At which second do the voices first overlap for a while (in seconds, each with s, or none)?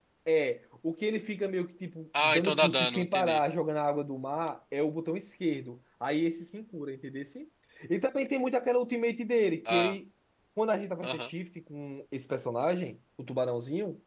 2.2 s